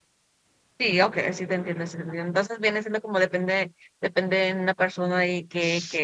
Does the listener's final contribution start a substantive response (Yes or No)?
No